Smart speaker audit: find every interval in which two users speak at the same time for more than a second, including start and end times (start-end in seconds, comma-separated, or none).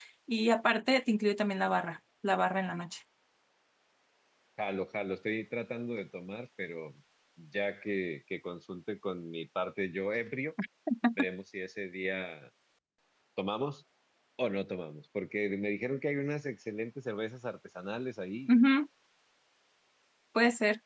none